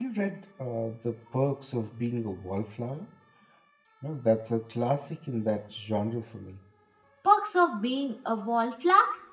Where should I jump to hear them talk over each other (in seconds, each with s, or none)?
none